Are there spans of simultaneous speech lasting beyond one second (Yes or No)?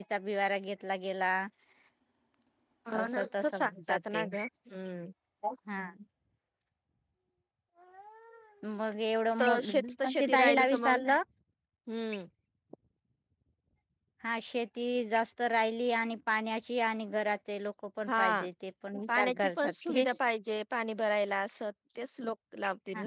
Yes